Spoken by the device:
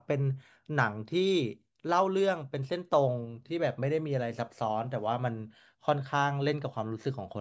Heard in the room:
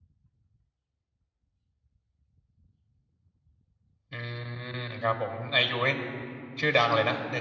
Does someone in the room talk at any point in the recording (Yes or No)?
Yes